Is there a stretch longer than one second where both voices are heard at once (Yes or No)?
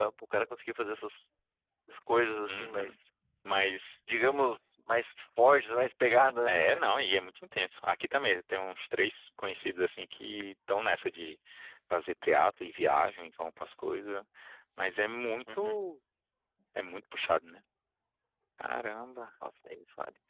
No